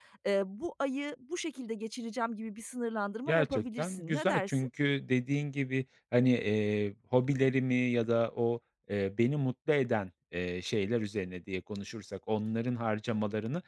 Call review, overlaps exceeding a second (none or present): present